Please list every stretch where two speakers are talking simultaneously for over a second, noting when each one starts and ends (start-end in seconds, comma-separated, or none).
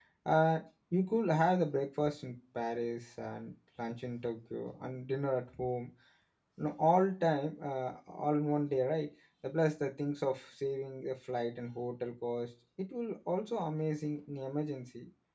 none